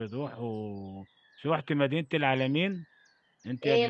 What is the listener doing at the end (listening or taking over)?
taking over